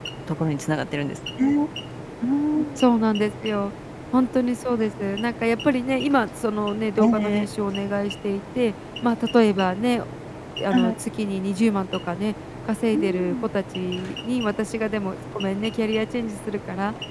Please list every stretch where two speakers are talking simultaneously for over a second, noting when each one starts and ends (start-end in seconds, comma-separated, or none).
none